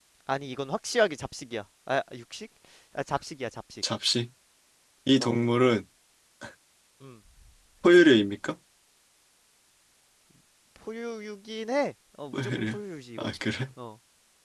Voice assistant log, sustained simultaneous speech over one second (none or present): none